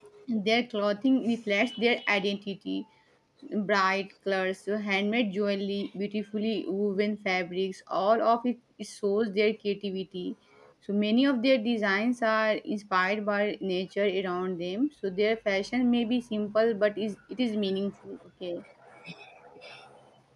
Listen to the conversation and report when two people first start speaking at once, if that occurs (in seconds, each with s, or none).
none